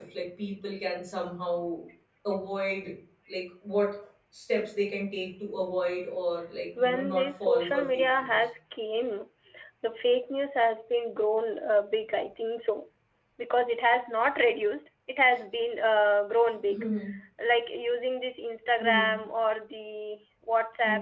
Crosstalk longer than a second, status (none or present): present